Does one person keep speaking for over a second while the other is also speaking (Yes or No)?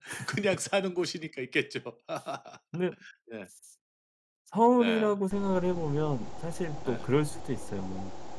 No